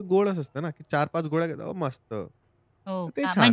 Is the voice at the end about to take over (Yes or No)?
Yes